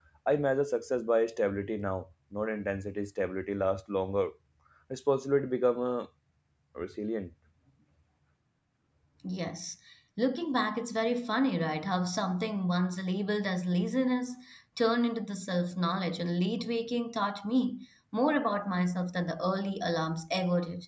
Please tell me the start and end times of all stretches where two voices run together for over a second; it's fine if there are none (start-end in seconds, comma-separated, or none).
none